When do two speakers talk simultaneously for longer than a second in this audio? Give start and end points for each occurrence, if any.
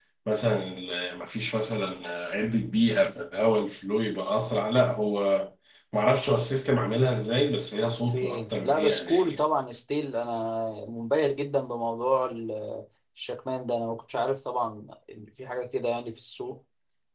7.8-9.4

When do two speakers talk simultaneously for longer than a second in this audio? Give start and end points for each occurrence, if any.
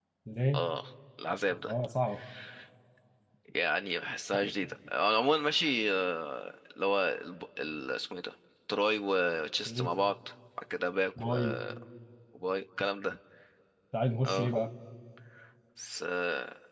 none

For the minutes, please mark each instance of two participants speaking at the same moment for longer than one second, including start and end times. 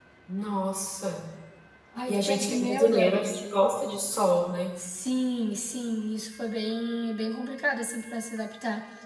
2.1-3.4

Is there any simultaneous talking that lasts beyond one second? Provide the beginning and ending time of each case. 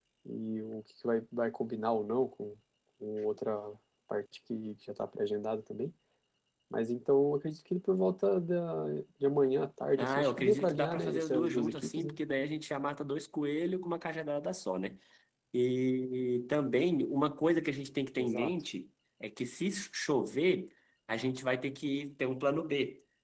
10.0-12.2

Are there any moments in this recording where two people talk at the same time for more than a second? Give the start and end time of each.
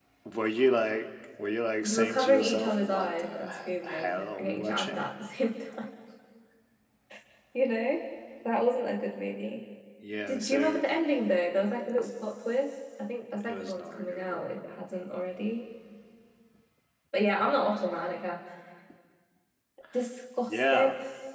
1.8-5.1, 13.5-14.8

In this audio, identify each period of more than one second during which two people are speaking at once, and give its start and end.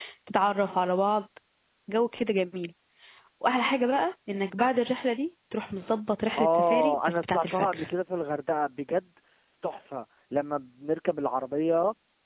6.4-7.9

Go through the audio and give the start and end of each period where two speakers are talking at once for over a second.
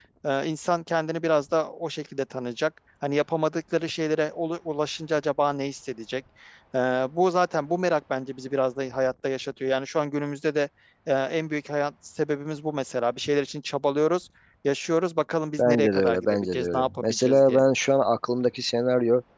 15.6-17.6

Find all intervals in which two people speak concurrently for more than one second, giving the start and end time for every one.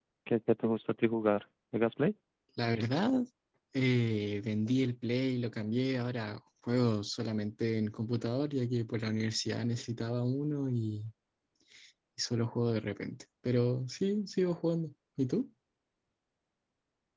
none

